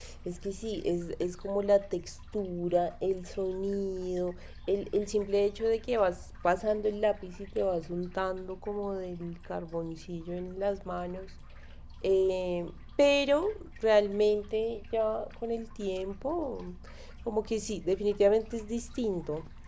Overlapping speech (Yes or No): No